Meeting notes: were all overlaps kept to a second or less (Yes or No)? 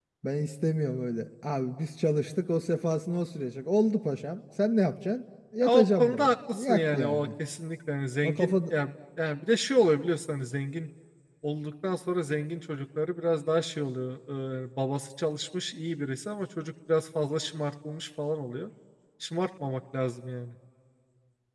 No